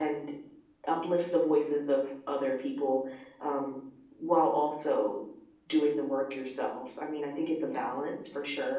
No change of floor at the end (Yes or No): Yes